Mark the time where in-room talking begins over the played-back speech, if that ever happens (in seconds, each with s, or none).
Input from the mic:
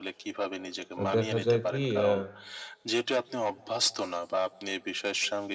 1.0 s